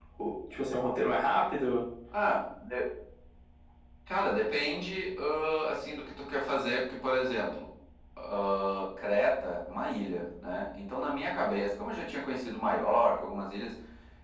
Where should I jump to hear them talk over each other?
none

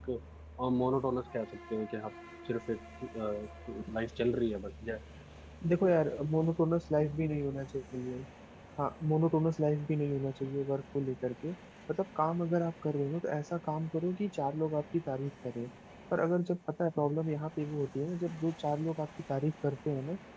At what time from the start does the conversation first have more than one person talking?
none

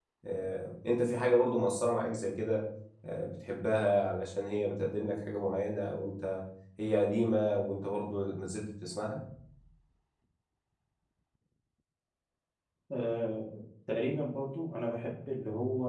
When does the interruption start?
none

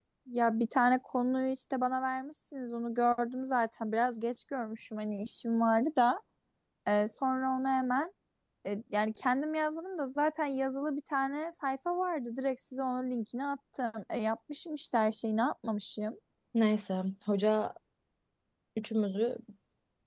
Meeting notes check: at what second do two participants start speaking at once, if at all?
none

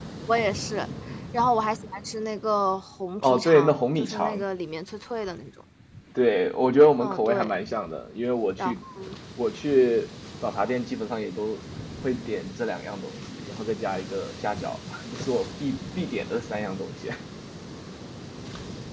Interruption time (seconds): 3.2 s

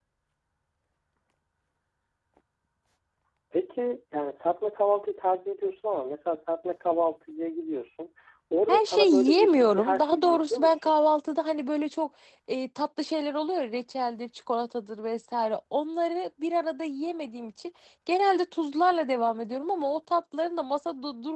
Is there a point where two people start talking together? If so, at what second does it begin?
8.7 s

